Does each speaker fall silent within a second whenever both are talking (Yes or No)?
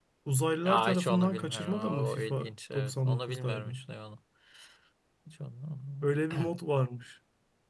No